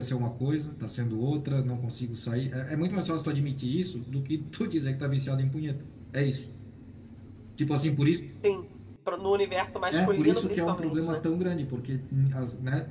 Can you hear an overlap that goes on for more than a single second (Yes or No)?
Yes